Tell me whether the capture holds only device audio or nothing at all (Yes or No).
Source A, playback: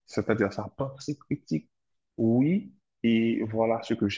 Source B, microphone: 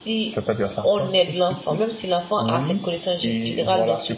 No